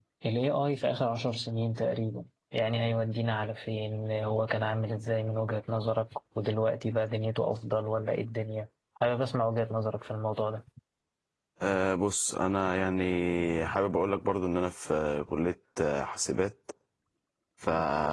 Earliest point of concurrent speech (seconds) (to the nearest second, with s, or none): none